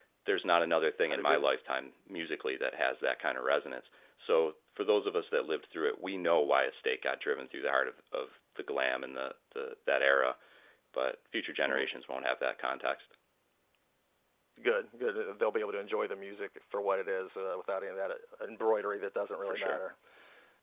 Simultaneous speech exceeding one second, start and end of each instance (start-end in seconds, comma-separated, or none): none